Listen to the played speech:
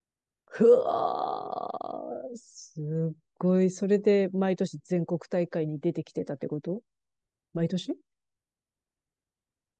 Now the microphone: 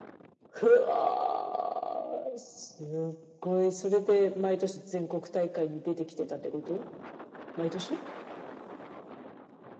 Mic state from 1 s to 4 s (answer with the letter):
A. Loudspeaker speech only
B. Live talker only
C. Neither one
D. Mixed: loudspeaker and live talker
A